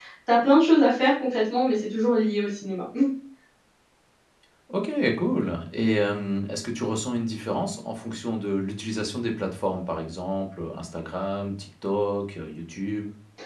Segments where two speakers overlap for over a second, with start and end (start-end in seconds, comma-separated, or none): none